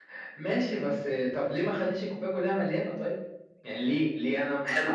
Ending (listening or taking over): taking over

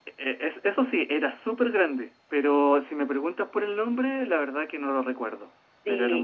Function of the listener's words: taking over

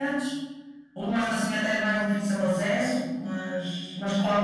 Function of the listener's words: taking over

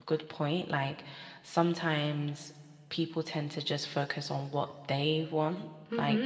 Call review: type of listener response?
taking over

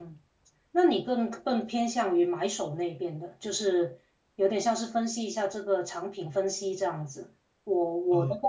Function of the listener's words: listening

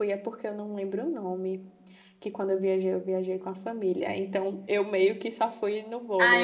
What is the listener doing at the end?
taking over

